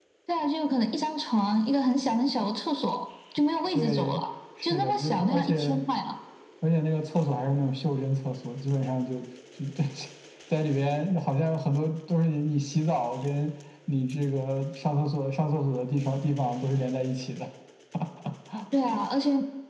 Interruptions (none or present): present